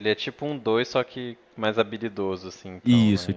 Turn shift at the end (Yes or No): Yes